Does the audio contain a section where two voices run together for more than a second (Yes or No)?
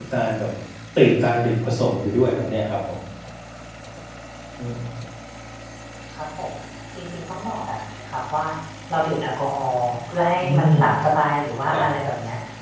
No